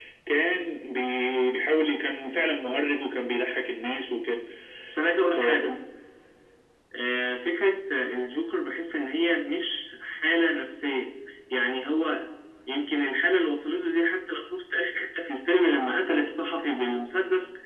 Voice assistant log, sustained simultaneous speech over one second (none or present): none